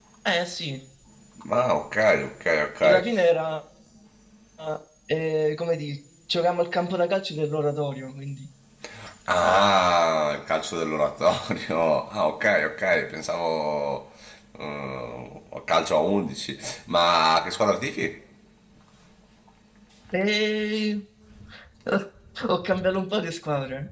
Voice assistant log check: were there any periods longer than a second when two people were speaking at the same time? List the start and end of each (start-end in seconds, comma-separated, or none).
none